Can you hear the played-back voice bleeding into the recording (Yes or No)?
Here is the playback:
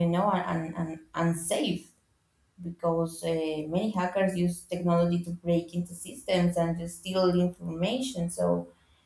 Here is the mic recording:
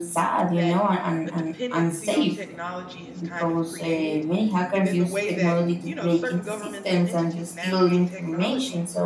Yes